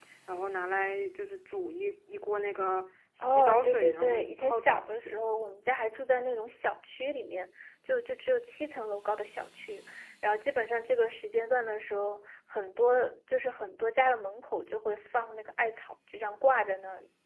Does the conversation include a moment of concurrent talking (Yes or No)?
Yes